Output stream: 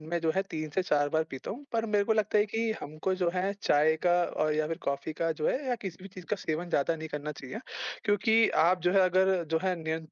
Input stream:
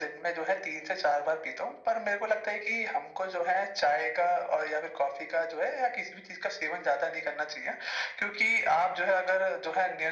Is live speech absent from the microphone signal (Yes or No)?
Yes